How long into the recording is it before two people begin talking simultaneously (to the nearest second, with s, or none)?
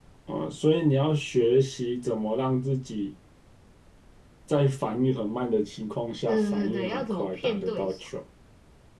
6 s